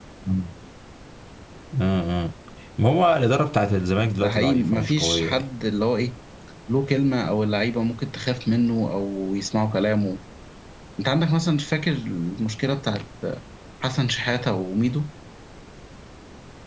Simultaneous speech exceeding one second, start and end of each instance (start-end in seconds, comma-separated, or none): 4.2-5.5